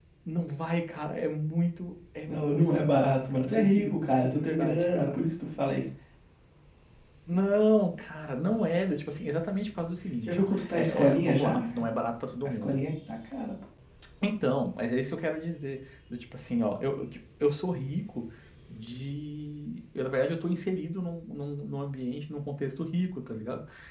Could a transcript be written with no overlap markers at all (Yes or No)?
No